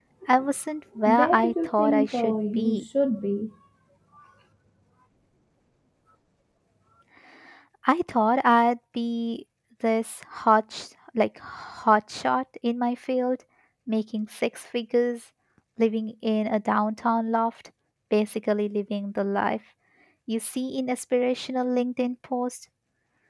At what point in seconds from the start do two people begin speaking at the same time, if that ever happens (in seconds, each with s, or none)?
1.1 s